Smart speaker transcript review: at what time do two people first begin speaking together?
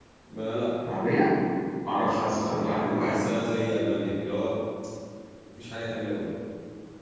1.8 s

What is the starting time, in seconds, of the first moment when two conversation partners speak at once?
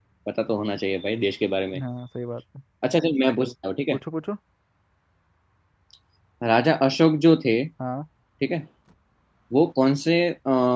none

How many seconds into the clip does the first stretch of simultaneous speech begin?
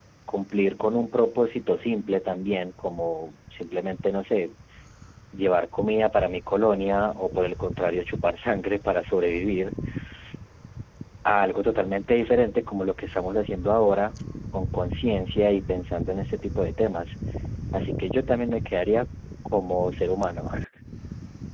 none

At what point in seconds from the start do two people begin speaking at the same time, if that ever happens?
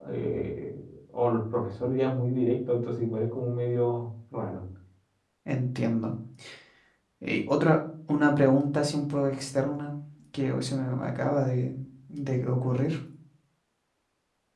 none

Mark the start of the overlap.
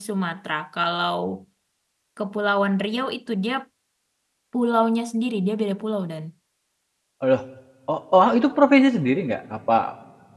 none

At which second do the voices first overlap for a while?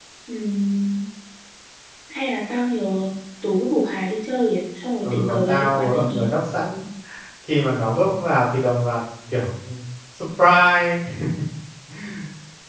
5.0 s

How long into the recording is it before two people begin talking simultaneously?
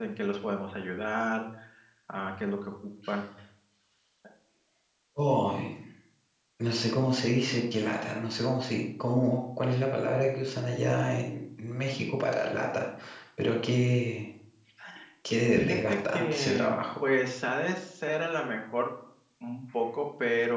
15.6 s

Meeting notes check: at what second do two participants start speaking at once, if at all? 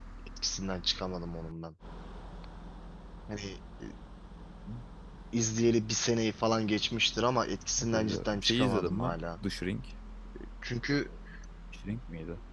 7.8 s

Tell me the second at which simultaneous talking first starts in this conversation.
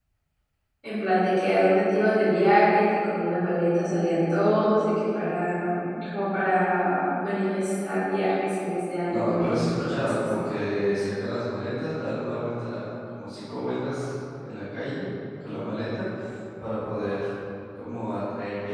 9.1 s

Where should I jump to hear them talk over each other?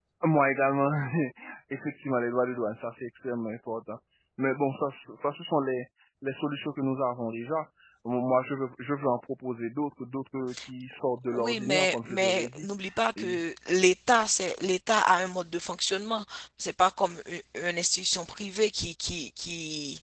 11.3 s

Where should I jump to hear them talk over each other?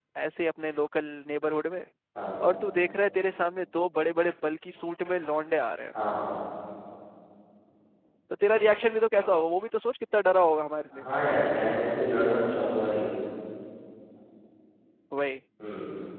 none

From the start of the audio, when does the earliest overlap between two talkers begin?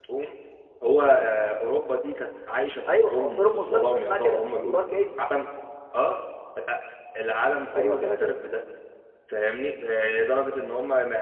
2.9 s

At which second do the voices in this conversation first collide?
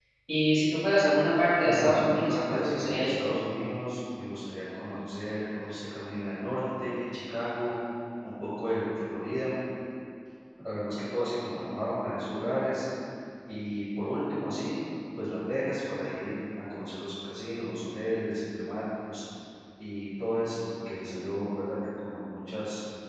1.6 s

